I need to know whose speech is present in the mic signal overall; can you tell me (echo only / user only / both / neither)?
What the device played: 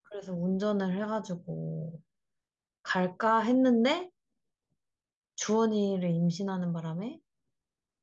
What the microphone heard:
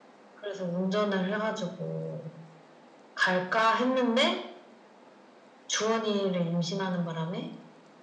echo only